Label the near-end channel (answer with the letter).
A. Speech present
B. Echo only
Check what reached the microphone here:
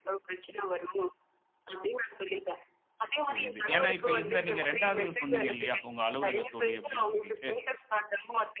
A